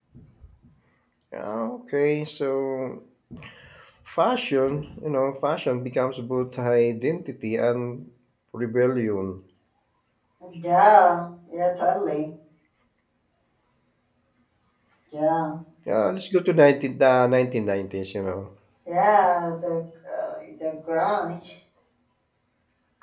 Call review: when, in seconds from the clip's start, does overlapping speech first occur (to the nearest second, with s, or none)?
none